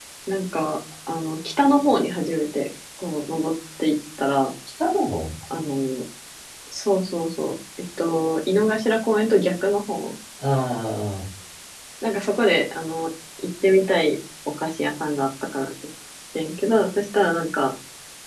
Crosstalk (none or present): none